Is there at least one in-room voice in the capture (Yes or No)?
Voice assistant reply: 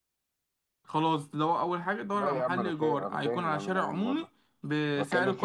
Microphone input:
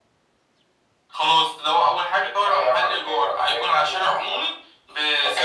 No